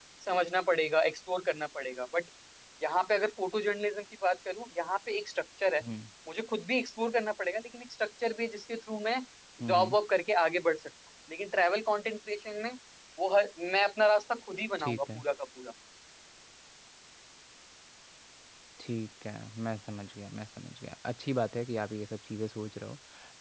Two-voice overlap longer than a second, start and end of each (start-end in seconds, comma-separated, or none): none